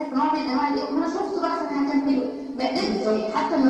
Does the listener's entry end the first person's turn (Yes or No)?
No